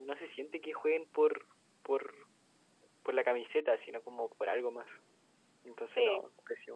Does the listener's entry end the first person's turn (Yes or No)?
Yes